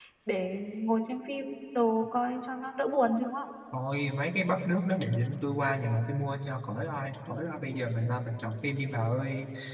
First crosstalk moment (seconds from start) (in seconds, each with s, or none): none